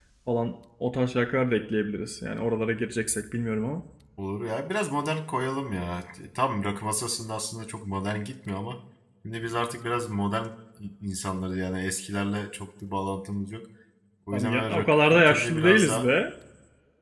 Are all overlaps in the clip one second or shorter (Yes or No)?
No